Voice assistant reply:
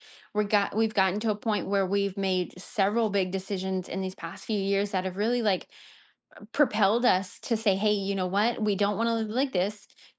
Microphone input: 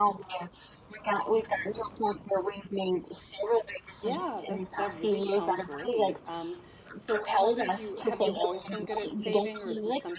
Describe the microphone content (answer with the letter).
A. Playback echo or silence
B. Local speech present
B